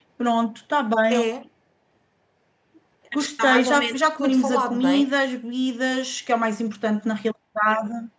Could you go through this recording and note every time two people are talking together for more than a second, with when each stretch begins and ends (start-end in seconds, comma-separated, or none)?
3.1-5.1